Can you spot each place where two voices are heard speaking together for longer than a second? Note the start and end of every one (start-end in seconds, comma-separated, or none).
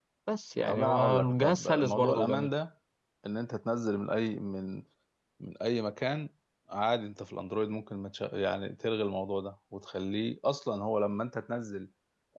0.7-2.5